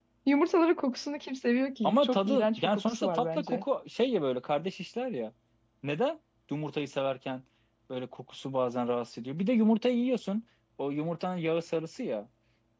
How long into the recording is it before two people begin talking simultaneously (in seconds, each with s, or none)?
1.8 s